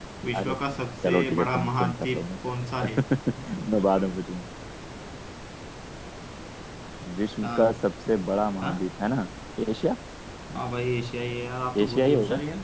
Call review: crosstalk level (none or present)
present